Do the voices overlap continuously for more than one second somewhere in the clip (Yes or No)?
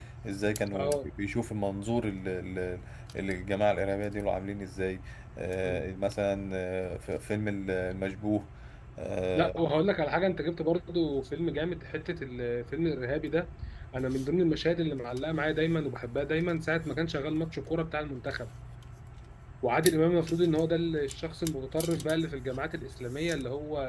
No